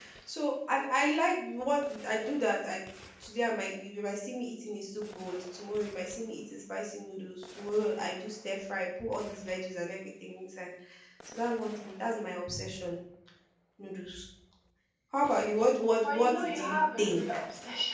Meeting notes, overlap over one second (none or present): present